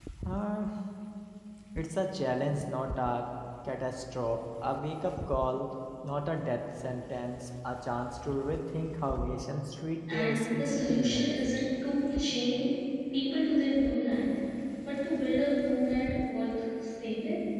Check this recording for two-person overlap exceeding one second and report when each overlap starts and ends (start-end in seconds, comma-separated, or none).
10.1-11.4